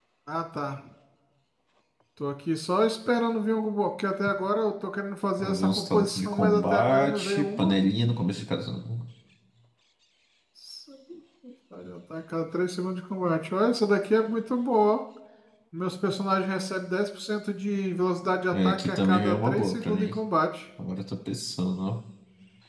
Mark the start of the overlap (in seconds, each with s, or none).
5.4 s